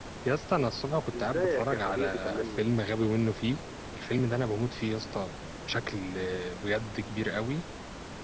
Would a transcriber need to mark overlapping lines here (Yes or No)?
Yes